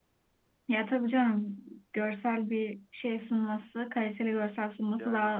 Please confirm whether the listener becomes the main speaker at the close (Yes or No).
No